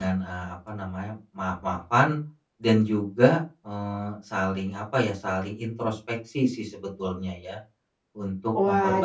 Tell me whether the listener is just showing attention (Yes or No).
No